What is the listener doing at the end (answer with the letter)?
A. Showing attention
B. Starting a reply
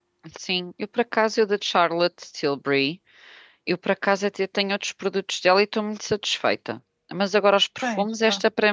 A